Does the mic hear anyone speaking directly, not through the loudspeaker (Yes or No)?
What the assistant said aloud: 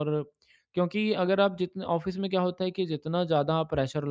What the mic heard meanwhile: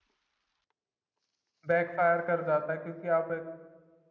Yes